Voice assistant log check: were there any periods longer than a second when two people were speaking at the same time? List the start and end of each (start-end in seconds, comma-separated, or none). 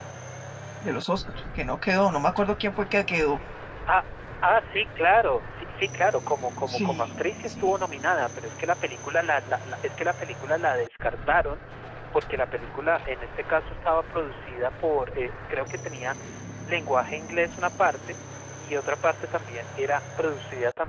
none